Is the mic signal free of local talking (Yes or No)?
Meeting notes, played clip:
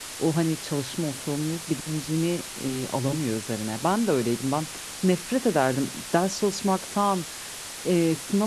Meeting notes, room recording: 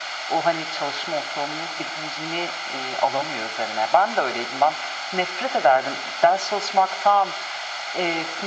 Yes